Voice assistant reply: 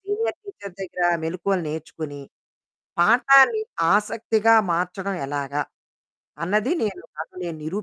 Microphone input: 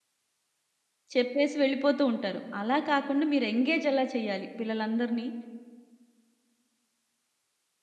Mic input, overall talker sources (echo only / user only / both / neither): user only